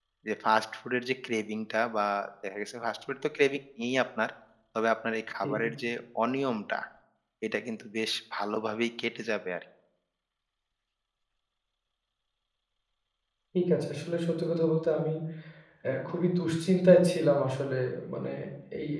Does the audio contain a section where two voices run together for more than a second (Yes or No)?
No